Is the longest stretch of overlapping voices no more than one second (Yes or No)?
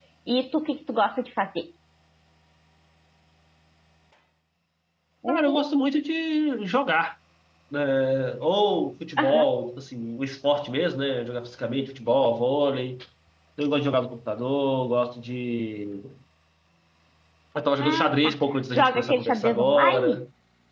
No